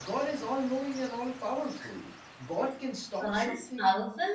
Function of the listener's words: taking over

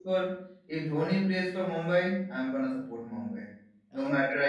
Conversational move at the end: taking over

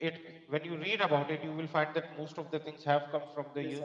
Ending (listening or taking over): listening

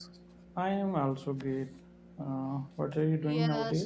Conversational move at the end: taking over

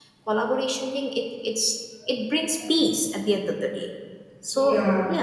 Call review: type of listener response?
listening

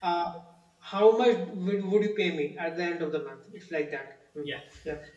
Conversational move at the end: taking over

